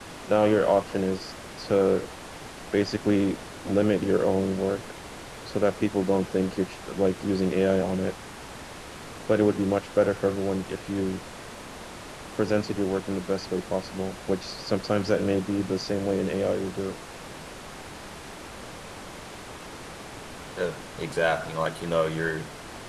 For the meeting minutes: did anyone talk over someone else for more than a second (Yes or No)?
No